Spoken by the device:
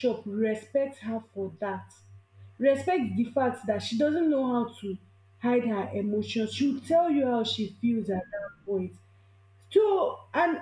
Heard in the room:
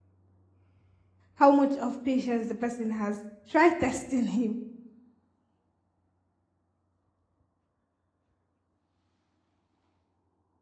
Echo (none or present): none